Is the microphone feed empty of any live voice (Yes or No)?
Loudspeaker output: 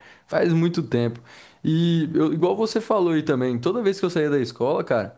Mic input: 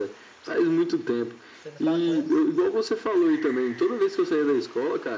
No